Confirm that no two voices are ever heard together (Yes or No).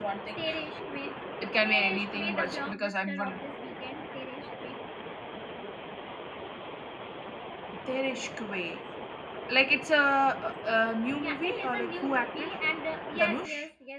No